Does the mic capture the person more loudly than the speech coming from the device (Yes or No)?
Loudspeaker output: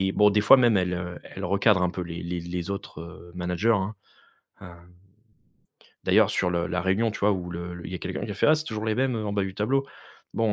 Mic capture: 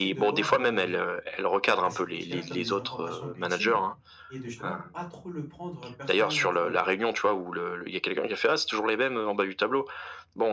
No